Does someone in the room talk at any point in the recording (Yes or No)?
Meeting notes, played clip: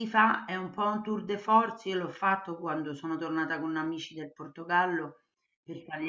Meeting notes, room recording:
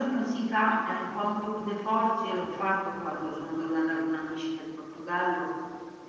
No